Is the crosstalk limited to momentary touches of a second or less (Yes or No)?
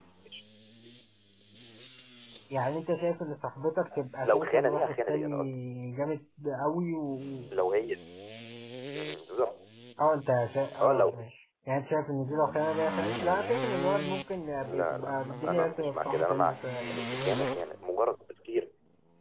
No